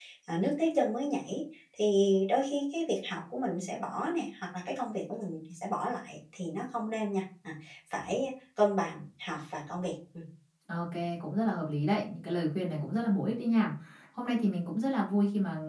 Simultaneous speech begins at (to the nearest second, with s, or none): none